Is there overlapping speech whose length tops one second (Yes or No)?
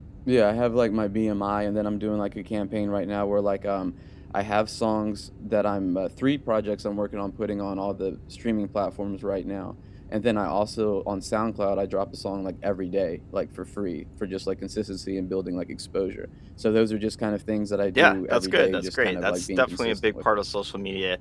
Yes